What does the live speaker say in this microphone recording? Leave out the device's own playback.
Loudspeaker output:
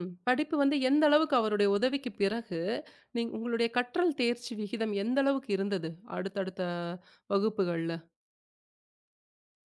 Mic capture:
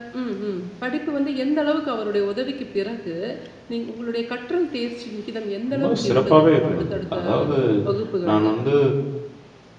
ரொம்ப சிறப்பாவே இருந்தது. அதாவது நான் வந்து

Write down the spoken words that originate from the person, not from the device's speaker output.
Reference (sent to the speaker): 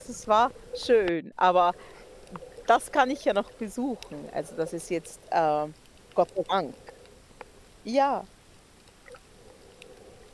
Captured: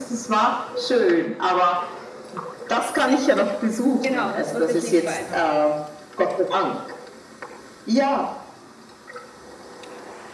Genau, das wird sich nicht verändern.

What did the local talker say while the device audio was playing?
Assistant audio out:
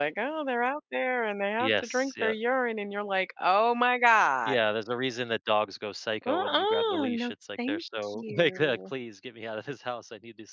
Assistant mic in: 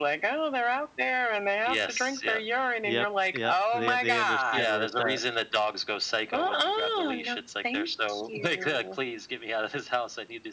Yep, yep. They they understand where it's at.

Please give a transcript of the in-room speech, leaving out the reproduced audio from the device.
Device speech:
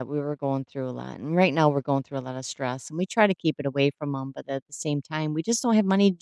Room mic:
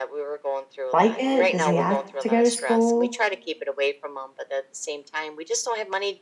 like it? Does he ask to go to school?

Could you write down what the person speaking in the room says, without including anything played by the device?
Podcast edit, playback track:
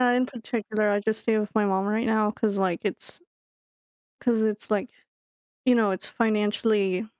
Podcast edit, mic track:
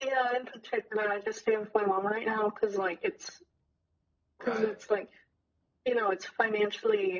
Right.

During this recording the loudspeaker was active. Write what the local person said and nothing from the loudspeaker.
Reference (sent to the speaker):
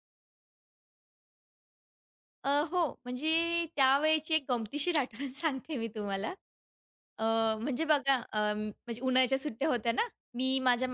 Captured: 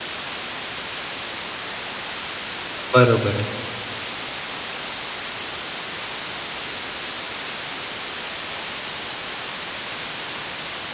बरोबर आहे.

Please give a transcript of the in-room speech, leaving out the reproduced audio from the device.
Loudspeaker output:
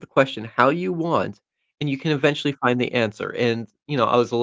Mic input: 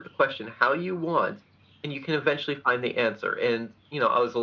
none

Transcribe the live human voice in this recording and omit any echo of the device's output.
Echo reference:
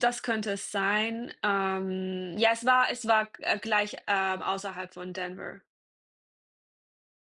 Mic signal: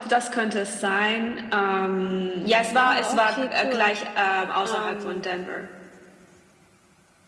Ah, okay, cool. Ähm,

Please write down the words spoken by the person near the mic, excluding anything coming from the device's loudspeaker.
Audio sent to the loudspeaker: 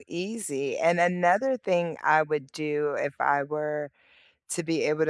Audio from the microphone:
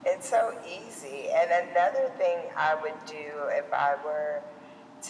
none

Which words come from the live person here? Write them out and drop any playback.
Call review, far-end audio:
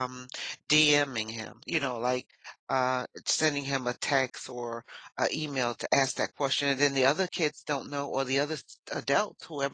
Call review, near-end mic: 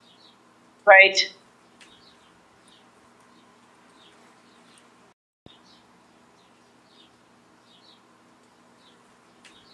right,

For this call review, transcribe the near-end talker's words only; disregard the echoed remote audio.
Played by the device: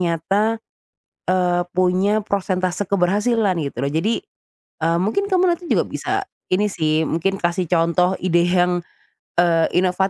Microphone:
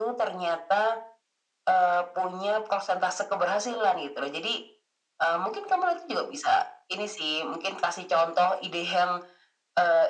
none

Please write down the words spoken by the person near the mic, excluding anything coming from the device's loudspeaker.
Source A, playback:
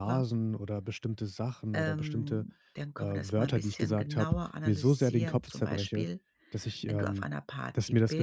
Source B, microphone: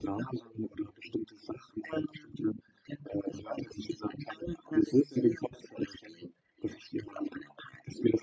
none

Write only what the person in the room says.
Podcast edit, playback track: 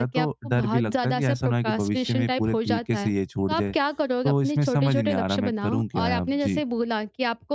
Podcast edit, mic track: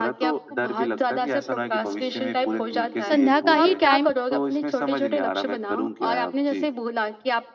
संध्या का ही टाइम

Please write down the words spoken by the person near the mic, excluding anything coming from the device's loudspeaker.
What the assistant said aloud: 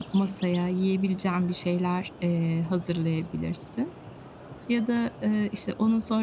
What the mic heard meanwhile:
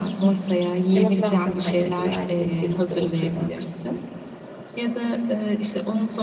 hani, motivasyon kaynağı gibi ailecek birlikte oturmak,

